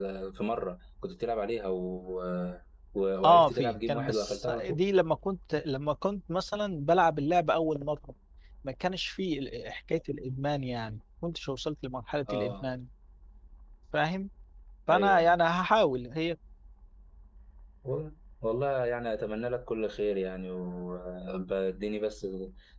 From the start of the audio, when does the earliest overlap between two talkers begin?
3 s

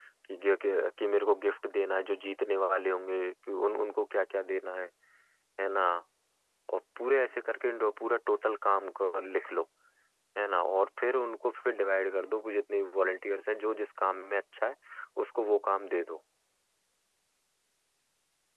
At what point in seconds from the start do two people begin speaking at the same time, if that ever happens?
none

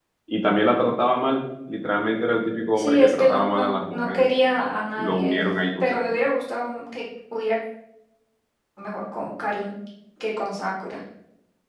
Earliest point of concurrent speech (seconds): 3 s

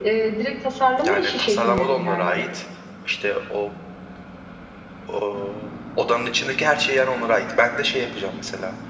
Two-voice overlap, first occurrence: 1 s

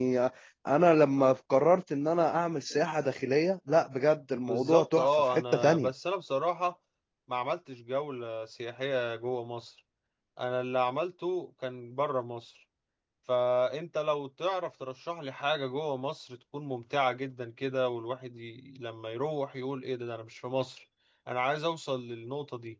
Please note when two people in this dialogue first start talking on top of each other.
4 s

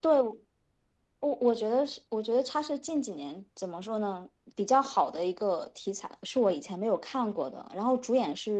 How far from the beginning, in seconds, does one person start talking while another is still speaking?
none

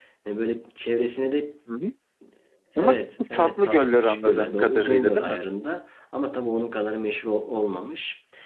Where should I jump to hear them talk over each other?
3 s

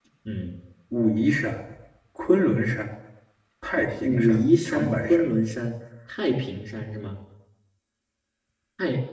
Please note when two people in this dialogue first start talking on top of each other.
4 s

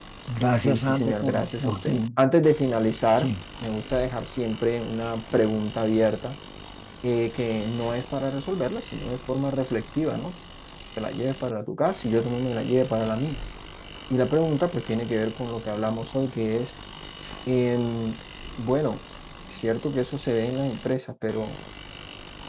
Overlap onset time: 1 s

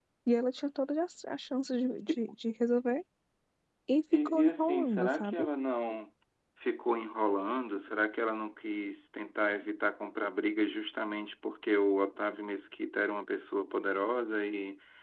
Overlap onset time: 4 s

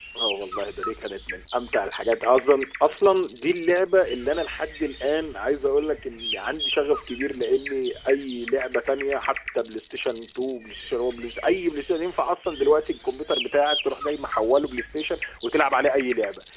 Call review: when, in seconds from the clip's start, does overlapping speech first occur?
none

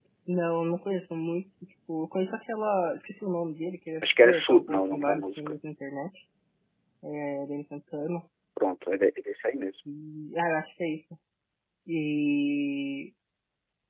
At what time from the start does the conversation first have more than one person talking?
4 s

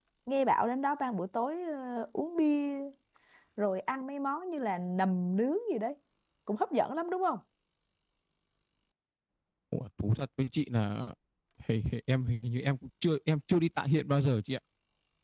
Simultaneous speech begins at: none

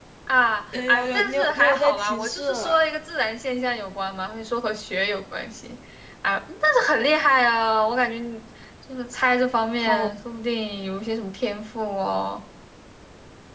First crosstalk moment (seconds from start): 1 s

